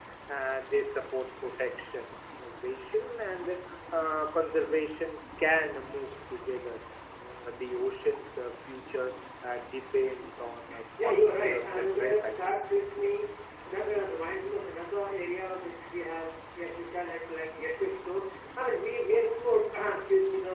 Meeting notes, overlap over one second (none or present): present